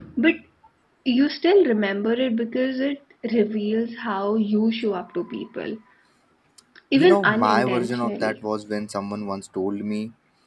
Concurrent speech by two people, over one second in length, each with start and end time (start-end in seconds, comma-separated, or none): 7.0-8.4